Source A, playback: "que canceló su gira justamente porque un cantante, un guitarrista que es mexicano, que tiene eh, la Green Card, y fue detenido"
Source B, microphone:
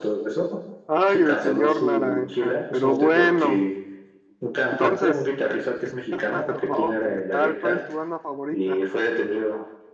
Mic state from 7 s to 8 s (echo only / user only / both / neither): both